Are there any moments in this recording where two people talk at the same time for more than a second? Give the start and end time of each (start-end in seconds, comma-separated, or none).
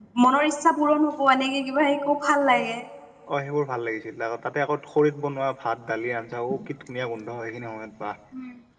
none